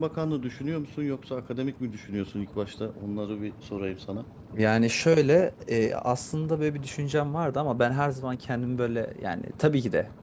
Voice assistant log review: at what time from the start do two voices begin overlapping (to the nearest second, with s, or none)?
none